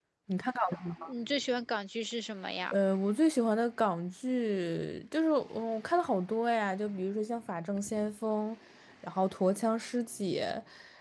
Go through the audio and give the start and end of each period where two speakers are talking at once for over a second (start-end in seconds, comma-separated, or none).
none